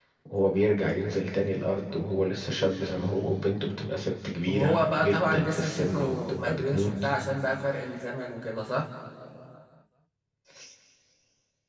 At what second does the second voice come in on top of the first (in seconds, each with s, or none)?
4.5 s